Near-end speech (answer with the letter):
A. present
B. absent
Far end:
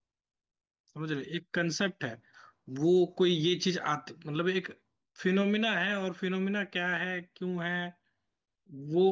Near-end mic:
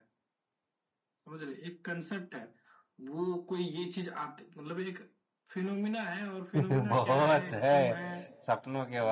A